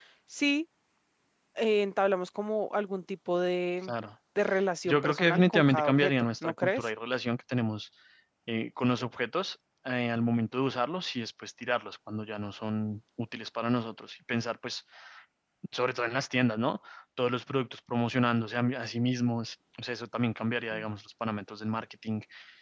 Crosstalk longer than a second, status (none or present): present